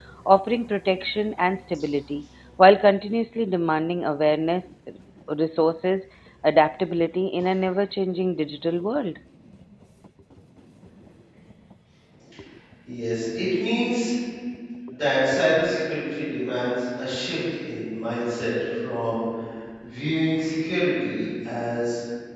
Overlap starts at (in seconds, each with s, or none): none